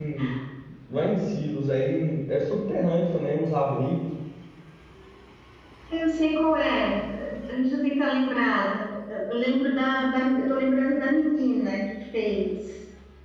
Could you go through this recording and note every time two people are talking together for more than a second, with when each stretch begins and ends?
none

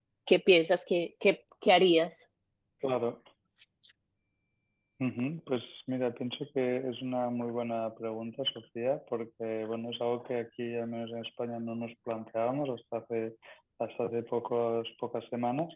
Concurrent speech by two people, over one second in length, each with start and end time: none

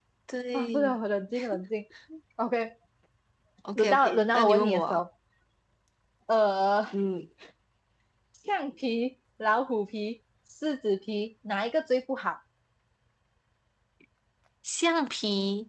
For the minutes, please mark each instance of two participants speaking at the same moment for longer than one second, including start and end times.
3.8-5.0

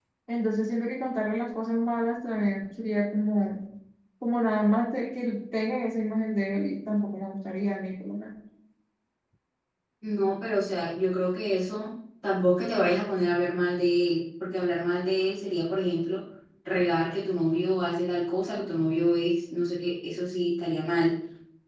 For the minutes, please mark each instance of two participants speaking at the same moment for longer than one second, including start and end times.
none

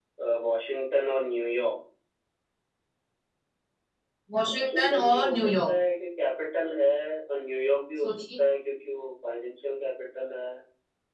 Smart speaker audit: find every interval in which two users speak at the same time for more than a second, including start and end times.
4.4-5.7

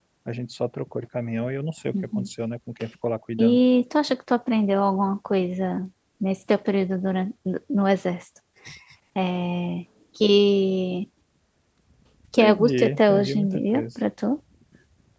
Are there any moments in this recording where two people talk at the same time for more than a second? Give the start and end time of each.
12.4-13.8

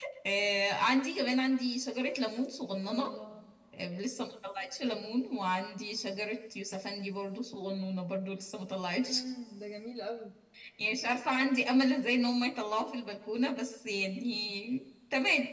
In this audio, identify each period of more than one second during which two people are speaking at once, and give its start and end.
none

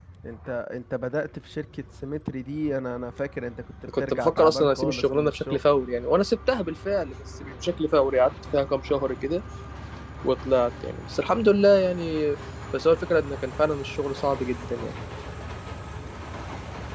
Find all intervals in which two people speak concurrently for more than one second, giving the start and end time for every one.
4.0-5.7

